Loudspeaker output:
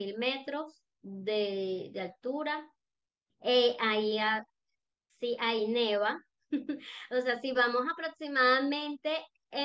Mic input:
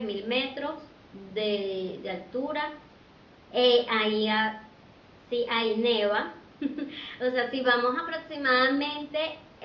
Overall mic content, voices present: echo only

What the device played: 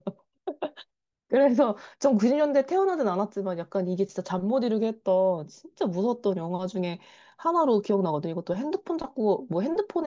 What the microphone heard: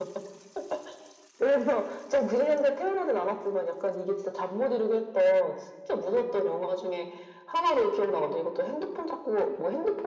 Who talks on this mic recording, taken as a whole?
echo only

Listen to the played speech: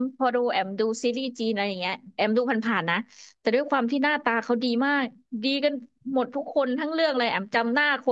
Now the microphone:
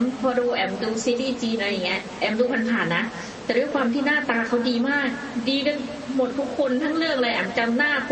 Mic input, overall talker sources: echo only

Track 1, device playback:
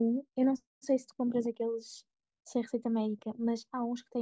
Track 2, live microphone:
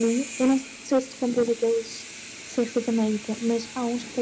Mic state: echo only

